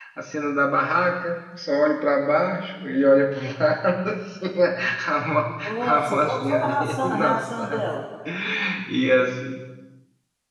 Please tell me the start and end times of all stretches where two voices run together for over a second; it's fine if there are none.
5.6-7.9

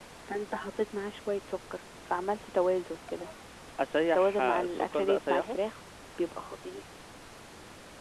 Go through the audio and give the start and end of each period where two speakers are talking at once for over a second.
4.1-5.6

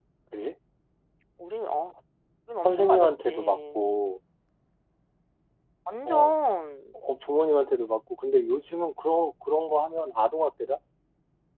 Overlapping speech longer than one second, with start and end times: 2.6-4.0

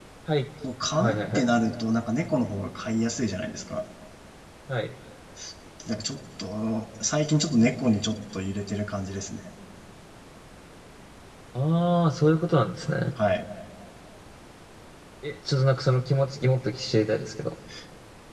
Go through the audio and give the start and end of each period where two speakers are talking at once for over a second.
none

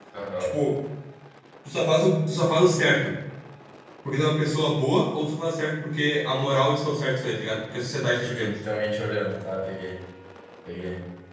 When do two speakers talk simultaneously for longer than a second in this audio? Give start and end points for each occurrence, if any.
none

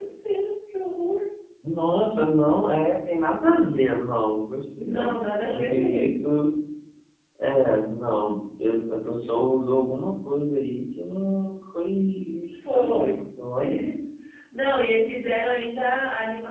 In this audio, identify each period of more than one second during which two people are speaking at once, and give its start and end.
4.8-6.2

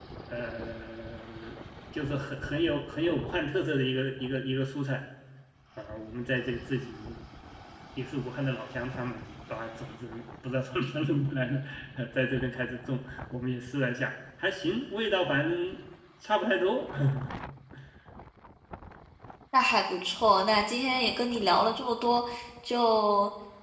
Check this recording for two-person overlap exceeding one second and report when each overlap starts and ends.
none

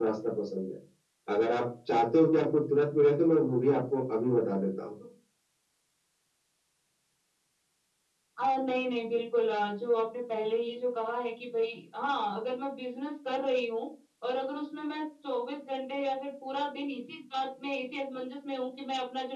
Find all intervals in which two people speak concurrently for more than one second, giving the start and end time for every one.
none

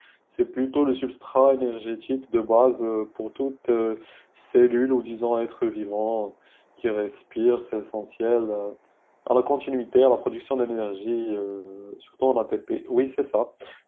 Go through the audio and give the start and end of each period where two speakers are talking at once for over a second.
none

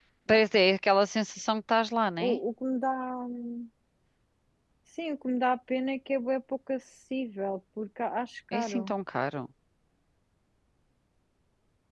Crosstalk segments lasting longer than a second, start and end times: none

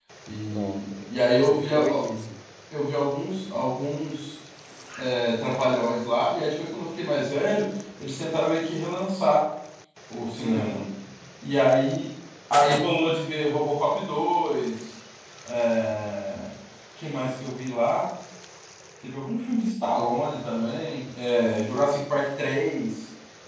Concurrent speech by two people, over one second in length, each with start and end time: 0.5-1.8

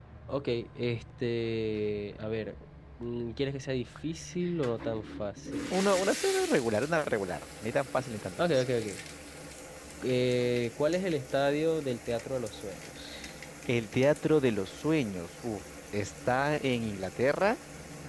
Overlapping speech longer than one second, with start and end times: none

